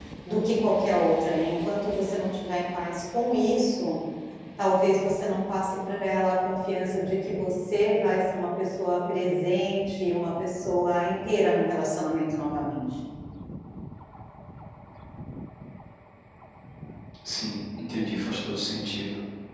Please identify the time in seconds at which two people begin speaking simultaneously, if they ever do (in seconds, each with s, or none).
none